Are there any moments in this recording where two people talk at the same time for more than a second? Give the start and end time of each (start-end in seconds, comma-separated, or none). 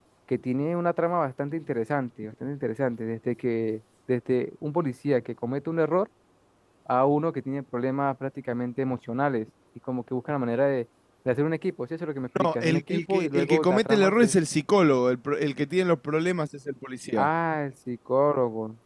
12.4-14.3